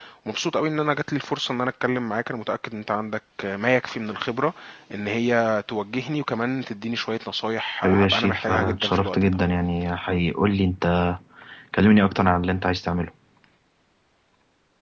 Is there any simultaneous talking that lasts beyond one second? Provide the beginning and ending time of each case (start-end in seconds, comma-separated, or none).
7.8-9.4